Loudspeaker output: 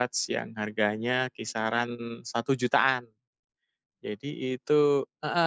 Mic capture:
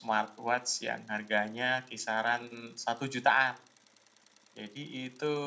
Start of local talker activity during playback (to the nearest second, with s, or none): none